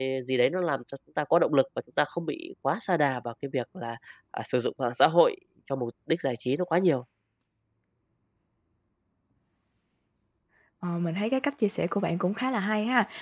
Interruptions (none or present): none